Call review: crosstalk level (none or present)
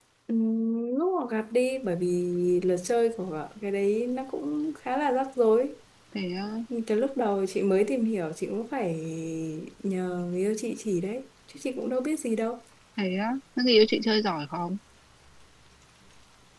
none